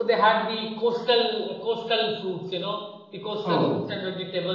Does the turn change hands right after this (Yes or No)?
No